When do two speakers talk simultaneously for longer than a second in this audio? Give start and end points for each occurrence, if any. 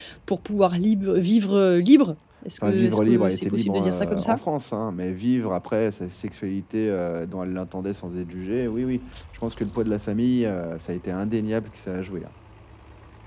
2.6-4.4

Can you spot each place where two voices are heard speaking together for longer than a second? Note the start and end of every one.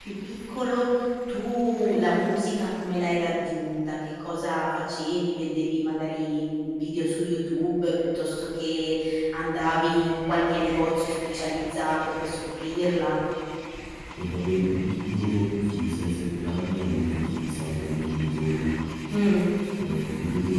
none

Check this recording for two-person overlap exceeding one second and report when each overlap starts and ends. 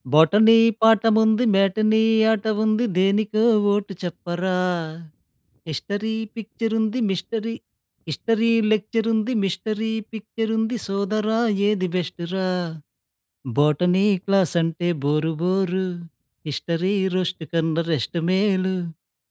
none

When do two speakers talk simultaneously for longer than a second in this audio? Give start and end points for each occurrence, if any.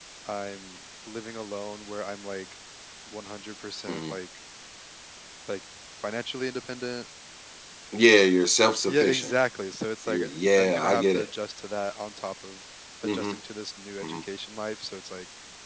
10.1-11.3

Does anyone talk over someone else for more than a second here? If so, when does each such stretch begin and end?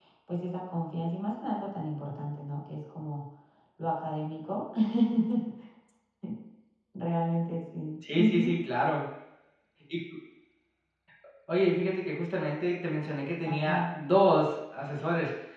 none

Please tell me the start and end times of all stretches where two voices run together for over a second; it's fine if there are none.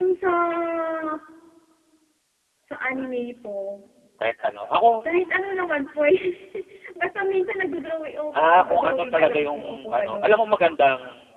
8.4-10.4

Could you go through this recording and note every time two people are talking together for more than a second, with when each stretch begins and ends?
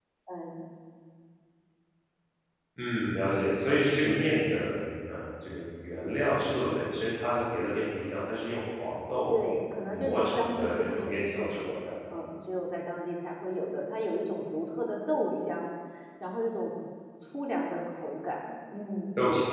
9.9-11.7

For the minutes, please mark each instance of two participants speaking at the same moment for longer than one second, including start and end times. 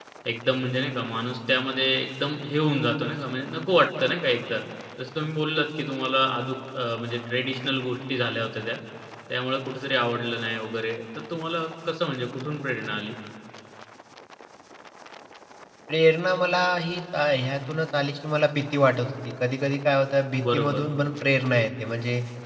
none

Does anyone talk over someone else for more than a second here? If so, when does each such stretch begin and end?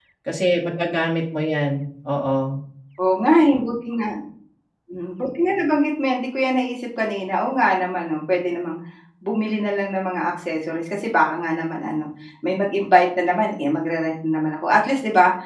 none

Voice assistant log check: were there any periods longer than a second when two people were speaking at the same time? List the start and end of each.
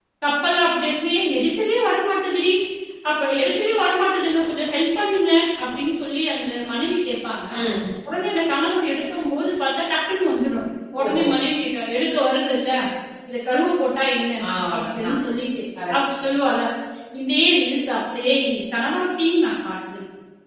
none

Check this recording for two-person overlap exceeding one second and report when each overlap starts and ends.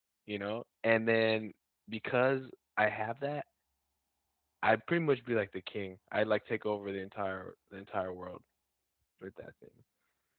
none

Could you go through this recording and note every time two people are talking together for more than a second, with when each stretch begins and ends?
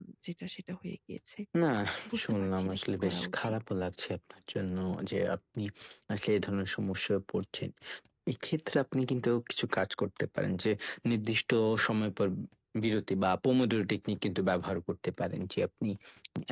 2.2-3.5

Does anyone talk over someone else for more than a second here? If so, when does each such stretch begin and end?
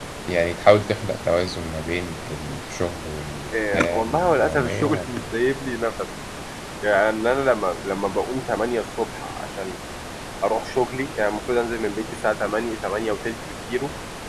3.5-5.2

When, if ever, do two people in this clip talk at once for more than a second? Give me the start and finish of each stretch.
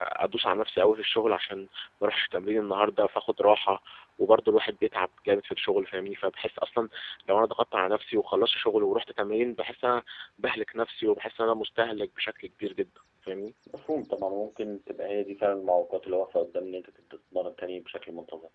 none

